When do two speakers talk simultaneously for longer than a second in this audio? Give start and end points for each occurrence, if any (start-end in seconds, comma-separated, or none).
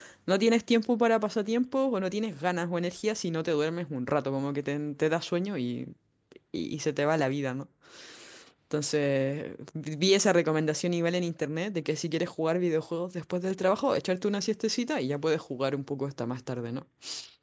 none